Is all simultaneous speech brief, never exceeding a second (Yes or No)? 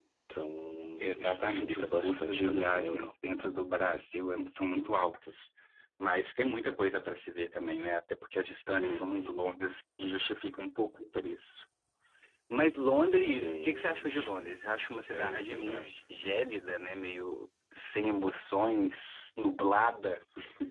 No